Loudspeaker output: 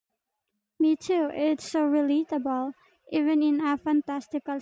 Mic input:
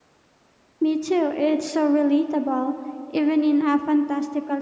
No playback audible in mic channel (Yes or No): No